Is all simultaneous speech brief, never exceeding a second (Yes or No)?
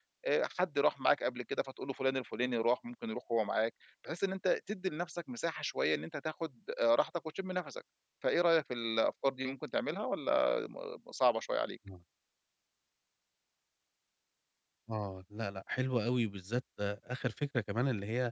Yes